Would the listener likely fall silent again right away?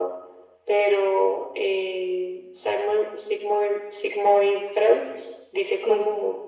Yes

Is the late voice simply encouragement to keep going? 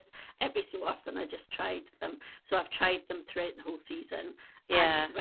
Yes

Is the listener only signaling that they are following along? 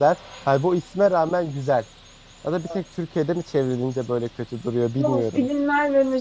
No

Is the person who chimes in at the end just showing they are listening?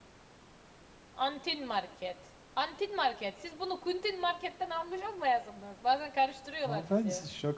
No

